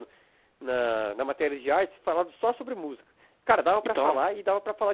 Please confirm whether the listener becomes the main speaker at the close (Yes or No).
No